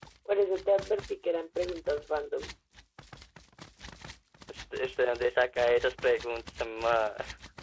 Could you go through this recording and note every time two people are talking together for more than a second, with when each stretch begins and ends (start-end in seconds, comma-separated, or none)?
none